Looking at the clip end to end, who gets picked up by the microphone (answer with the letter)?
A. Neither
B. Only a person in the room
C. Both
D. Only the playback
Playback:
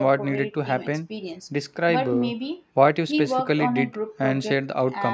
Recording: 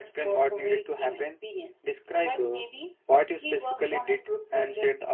D